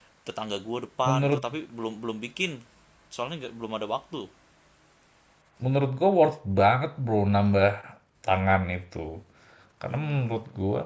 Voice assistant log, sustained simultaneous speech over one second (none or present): none